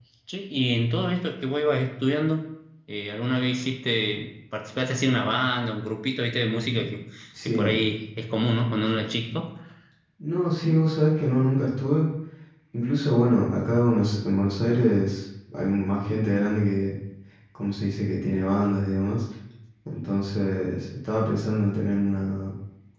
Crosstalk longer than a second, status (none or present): none